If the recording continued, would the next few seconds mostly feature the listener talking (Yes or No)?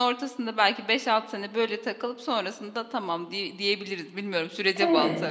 Yes